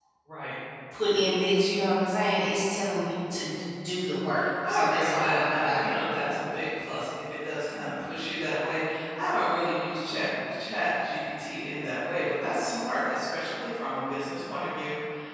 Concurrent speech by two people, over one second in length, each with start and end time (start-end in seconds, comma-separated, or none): 4.7-5.9